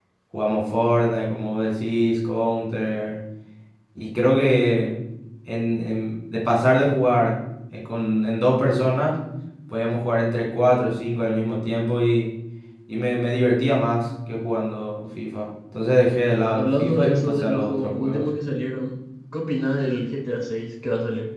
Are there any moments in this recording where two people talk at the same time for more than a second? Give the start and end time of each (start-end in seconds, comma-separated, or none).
16.6-18.2